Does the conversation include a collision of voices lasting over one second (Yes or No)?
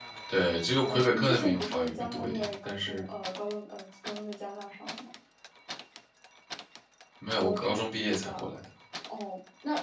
Yes